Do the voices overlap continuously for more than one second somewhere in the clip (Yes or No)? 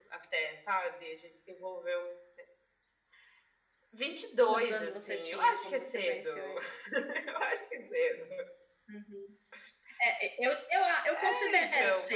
Yes